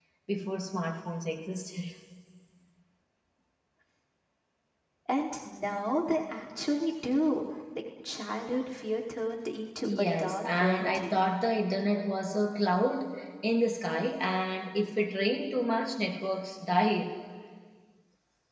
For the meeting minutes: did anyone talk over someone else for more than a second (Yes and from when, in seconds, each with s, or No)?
Yes, from 9.8 s